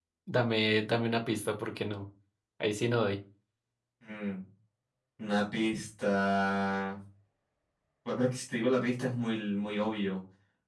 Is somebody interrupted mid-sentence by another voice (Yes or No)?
No